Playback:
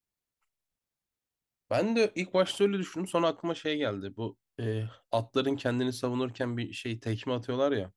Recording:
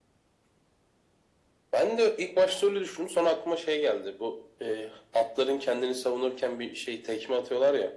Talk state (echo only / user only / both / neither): echo only